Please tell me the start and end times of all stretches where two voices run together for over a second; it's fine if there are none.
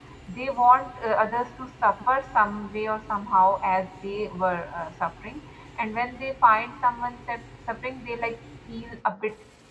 none

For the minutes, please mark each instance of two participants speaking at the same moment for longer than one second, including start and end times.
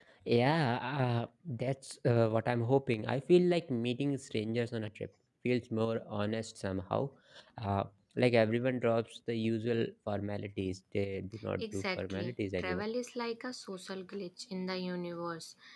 11.6-12.8

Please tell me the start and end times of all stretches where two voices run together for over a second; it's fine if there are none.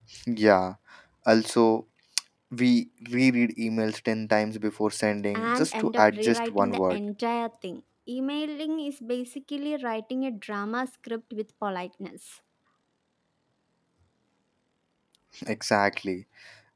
5.3-7.0

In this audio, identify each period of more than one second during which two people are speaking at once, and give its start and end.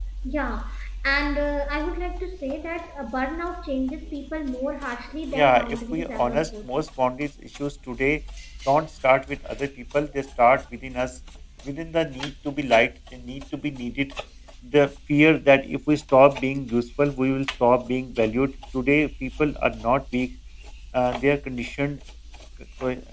5.3-6.7

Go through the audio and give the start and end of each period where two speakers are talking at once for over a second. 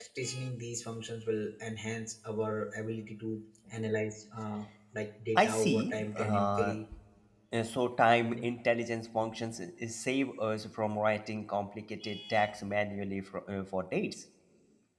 5.3-6.8

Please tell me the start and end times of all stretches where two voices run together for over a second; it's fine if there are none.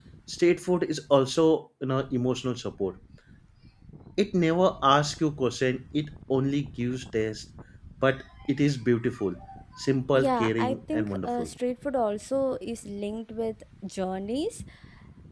10.1-11.5

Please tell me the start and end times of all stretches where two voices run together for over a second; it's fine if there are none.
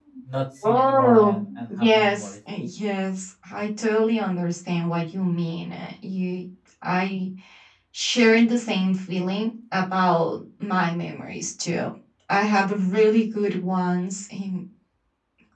0.6-2.3

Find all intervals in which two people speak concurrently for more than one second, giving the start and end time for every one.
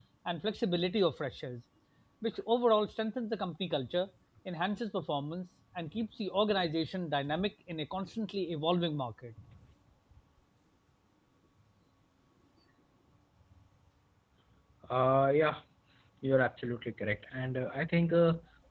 none

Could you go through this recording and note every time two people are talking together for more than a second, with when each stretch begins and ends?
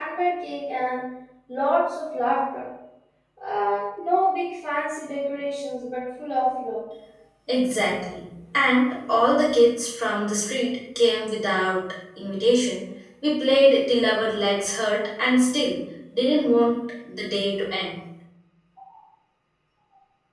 none

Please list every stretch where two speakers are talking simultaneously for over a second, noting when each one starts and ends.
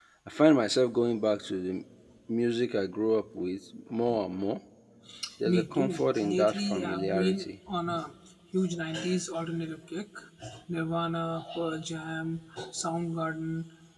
5.5-7.5

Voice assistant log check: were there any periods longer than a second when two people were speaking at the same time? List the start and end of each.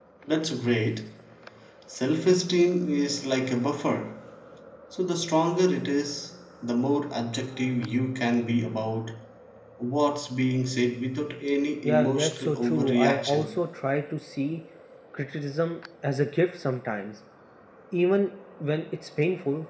11.8-13.5

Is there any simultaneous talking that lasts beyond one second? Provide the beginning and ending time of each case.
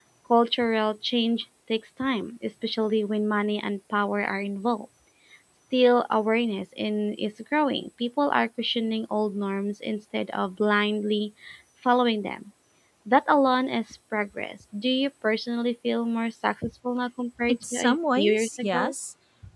17.5-18.9

